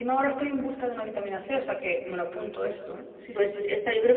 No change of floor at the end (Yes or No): No